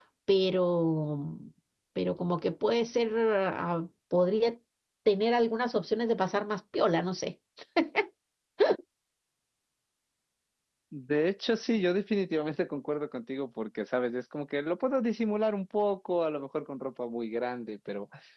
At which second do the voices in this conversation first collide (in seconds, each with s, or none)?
none